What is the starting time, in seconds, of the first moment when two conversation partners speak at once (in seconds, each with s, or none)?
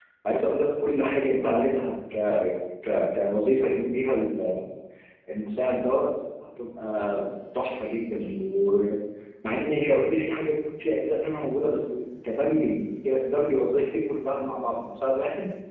none